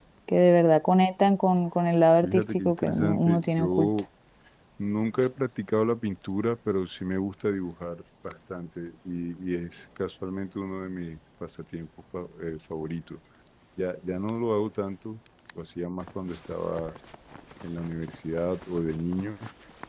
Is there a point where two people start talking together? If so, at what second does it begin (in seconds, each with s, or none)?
2.2 s